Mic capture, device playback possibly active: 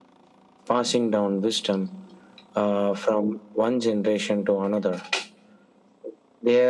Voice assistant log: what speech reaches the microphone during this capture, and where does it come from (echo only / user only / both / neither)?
echo only